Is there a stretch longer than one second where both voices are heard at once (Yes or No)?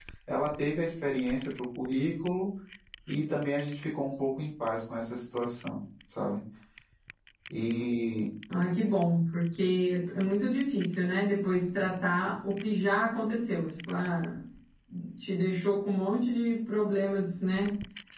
No